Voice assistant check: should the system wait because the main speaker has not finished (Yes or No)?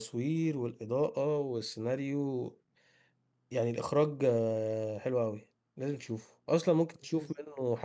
Yes